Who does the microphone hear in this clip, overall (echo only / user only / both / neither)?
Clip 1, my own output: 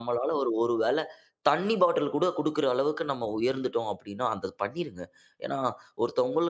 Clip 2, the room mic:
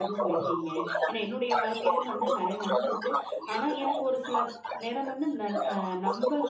both